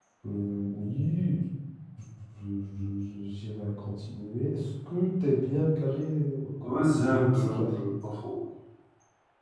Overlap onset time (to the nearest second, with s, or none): 7 s